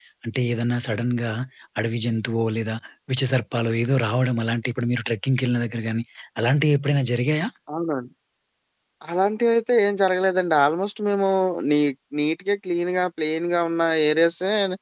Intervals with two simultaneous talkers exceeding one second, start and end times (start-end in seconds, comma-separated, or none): none